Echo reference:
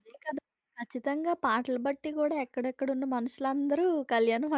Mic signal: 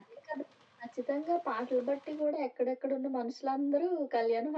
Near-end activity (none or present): none